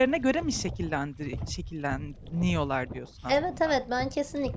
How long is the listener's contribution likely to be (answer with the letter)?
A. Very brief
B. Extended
B